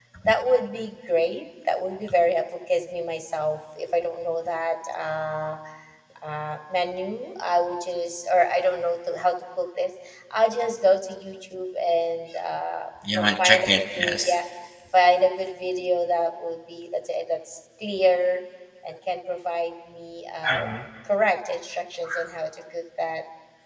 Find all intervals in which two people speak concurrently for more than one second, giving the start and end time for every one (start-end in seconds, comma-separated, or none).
13.1-14.3